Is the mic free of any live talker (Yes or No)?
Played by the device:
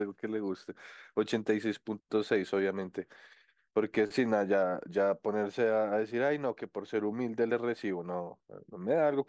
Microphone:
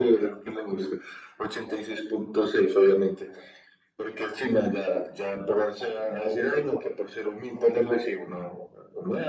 Yes